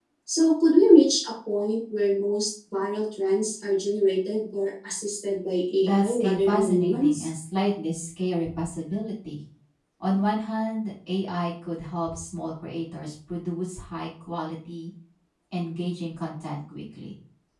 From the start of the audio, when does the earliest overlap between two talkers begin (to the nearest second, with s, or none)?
6 s